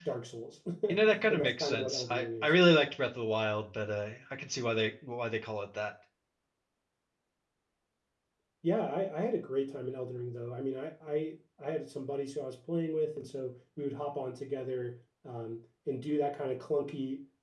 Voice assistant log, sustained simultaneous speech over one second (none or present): present